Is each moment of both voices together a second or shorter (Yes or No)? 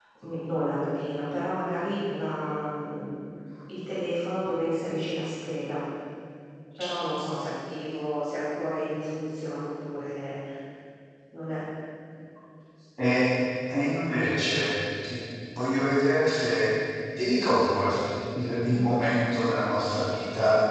Yes